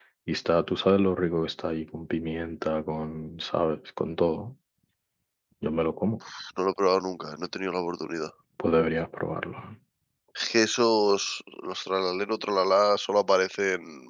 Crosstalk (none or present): none